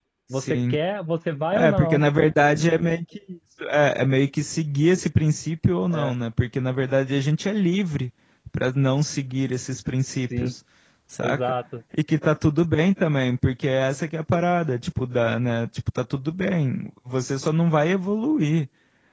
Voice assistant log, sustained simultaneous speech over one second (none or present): none